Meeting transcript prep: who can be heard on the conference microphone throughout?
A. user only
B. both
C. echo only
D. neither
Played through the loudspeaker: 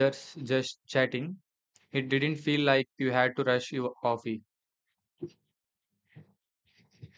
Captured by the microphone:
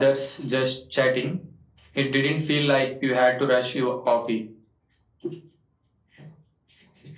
C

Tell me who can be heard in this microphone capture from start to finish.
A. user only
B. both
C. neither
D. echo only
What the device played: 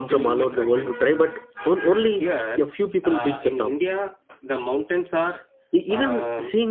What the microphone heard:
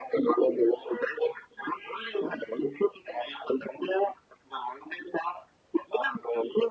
D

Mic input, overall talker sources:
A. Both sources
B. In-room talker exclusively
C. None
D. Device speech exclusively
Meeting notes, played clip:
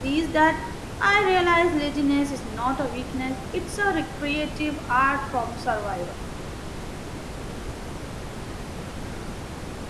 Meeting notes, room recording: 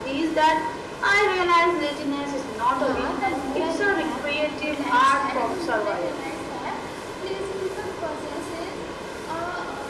A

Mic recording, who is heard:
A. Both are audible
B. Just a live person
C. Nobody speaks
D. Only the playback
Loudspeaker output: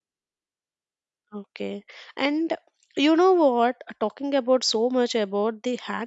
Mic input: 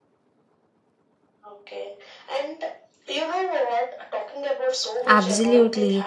A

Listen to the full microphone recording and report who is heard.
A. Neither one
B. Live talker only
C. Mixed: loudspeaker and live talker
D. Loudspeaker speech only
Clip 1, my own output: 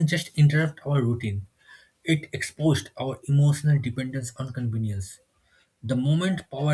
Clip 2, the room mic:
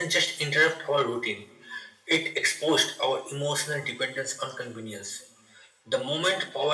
D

